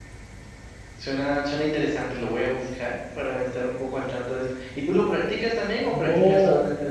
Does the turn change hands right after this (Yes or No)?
Yes